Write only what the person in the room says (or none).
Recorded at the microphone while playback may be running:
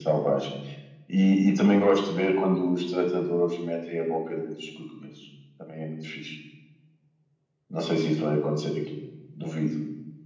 none